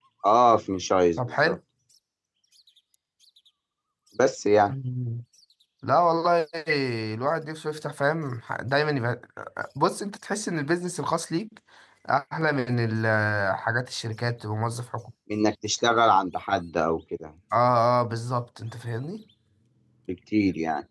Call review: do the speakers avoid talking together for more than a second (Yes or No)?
Yes